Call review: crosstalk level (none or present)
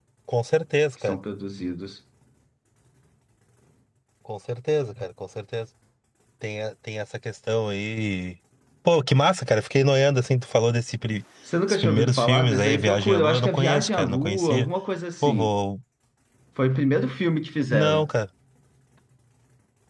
present